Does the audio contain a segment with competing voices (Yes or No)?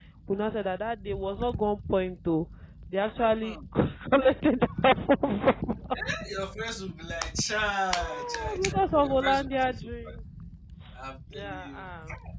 Yes